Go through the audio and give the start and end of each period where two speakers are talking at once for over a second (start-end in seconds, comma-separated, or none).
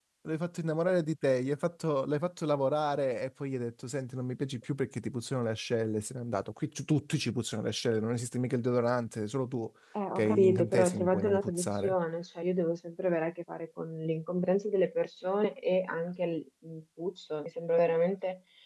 10.2-11.9